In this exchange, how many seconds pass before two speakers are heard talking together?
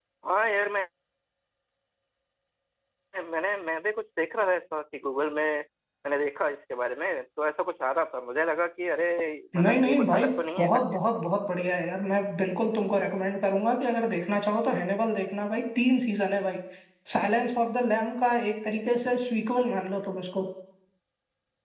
10 s

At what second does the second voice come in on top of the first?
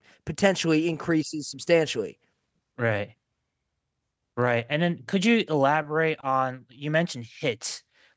none

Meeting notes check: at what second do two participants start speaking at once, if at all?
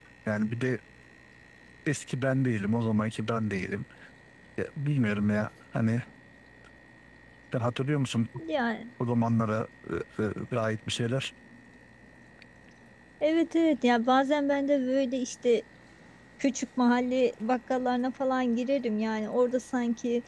none

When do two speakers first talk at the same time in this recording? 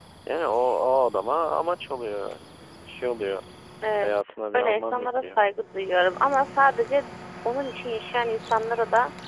4 s

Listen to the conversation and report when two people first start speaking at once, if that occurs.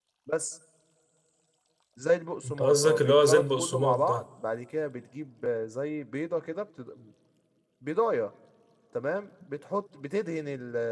2 s

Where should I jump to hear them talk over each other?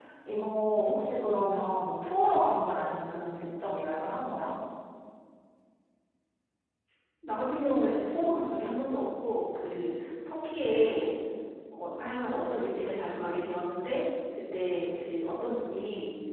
none

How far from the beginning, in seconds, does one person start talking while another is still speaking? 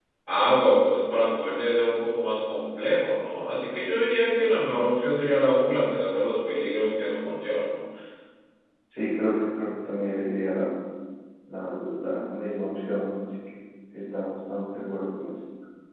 none

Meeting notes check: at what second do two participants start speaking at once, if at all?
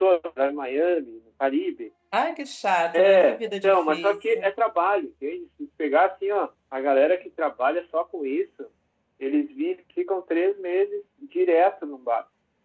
3 s

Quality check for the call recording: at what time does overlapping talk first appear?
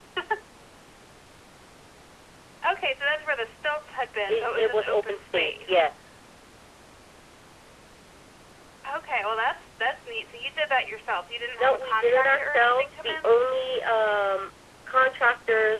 4 s

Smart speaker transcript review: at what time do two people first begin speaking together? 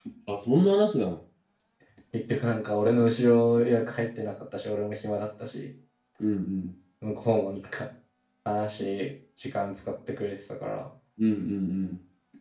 none

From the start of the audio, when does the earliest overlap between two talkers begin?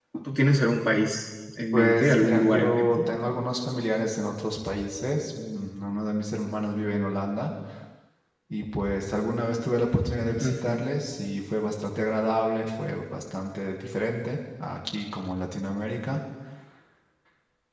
2 s

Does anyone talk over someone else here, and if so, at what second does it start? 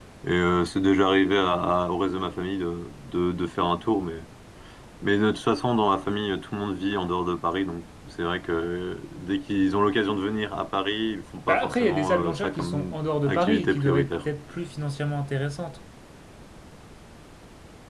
11 s

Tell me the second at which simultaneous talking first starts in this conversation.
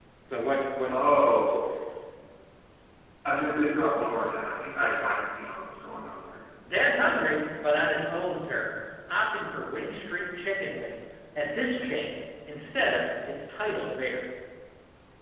none

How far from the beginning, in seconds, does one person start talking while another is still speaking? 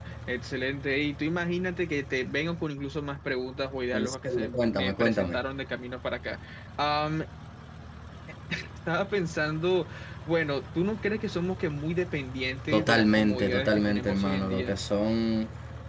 4 s

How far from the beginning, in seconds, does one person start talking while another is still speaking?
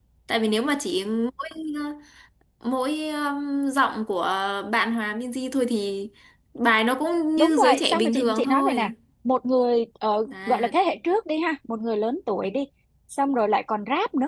7 s

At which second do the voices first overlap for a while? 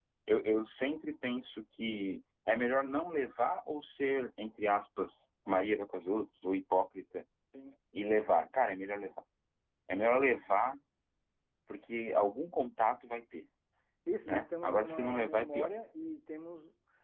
14 s

